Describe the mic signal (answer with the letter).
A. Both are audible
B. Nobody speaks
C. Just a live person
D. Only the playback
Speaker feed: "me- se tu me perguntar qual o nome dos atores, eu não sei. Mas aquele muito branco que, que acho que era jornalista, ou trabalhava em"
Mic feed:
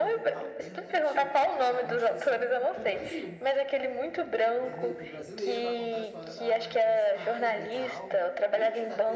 A